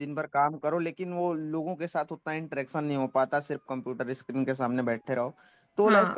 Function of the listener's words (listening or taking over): listening